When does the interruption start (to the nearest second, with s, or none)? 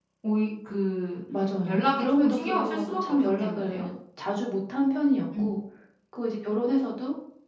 2 s